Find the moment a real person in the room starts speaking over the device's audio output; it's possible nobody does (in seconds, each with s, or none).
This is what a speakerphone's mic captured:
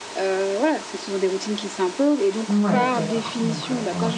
2.5 s